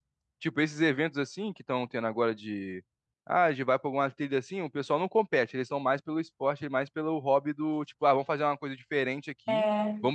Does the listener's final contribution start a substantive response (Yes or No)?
No